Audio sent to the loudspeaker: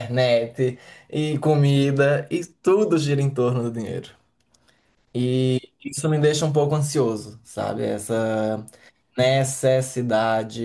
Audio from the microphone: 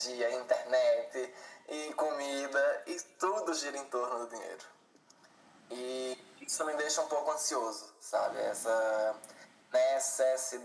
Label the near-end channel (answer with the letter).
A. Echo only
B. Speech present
A